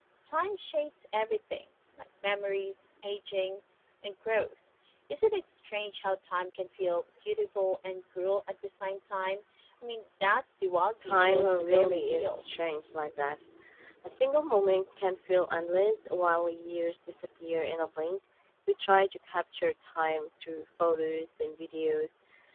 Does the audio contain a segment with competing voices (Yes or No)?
Yes